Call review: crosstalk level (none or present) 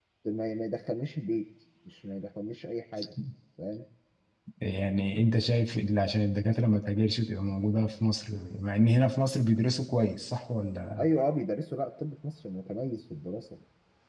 none